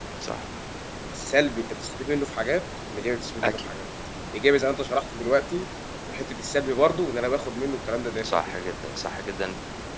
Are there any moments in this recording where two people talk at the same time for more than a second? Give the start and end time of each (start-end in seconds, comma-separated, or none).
none